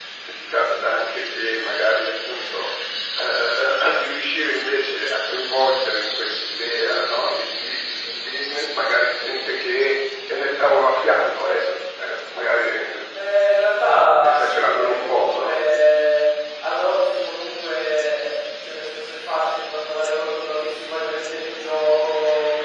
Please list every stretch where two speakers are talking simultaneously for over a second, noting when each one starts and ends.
14.2-15.6

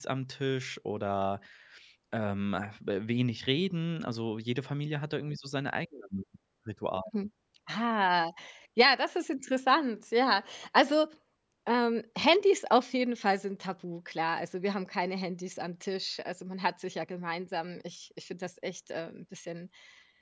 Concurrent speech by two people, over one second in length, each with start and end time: none

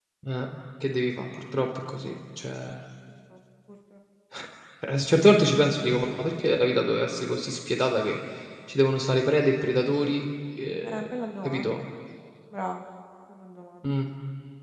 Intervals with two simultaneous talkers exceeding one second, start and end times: none

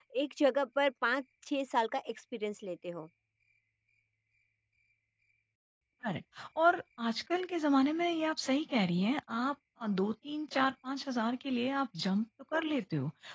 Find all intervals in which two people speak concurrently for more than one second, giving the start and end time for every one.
none

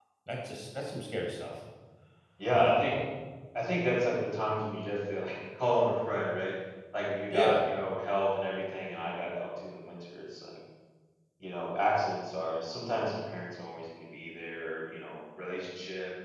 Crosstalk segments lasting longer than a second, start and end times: none

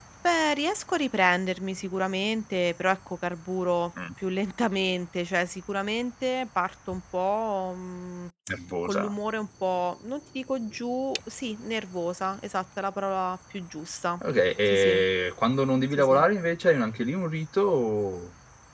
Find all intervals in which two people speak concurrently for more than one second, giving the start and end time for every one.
none

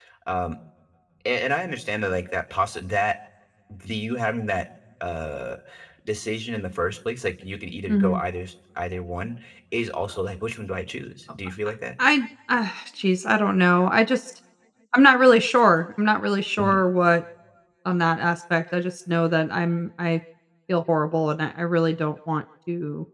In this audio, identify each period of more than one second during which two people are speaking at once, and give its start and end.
none

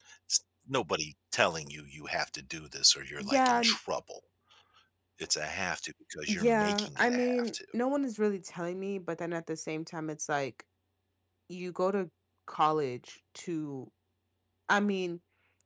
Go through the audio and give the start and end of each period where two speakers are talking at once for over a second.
6.3-7.5

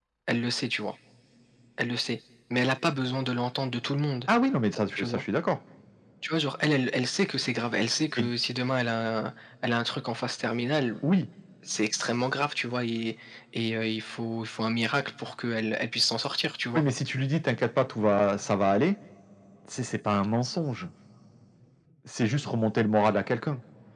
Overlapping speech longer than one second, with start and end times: none

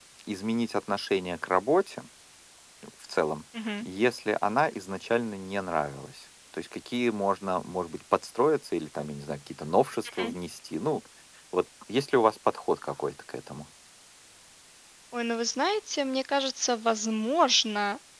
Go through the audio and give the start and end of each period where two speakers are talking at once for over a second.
none

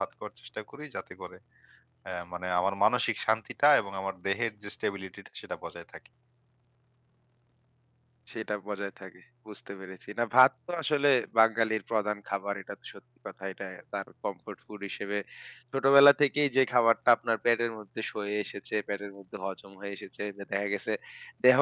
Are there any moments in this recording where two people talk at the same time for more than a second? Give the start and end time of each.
none

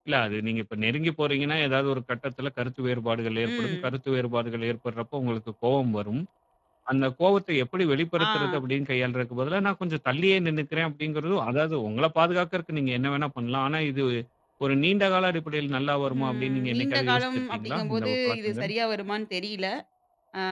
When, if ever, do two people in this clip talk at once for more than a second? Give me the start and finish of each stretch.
16.2-18.7

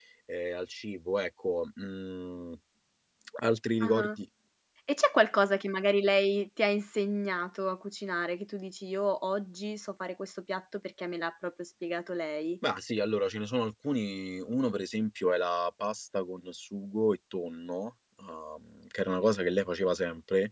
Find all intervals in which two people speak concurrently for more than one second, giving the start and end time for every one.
none

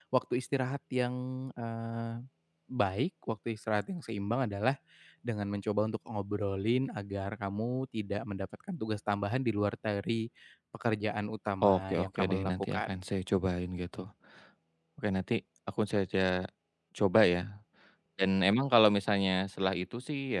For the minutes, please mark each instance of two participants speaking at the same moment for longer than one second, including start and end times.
11.6-12.9

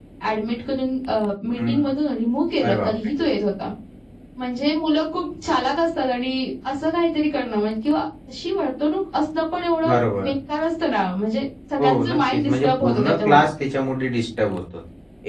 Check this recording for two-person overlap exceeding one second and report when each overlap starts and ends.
11.8-13.4

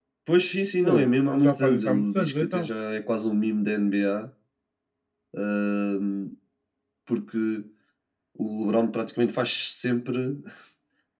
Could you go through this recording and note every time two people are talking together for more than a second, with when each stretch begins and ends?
0.8-2.7

